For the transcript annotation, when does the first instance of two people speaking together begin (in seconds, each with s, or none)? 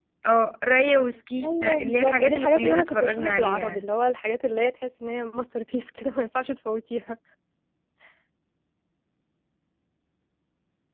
1.4 s